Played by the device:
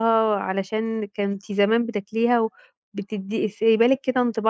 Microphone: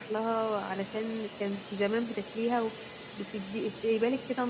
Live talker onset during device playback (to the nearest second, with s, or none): none